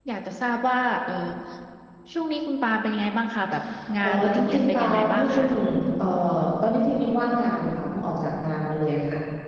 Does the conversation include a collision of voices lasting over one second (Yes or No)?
Yes